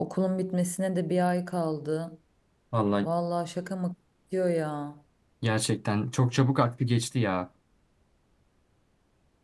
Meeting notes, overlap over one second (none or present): none